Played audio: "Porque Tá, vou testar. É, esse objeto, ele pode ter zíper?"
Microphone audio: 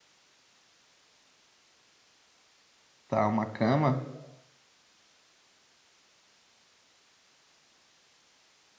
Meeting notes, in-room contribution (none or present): present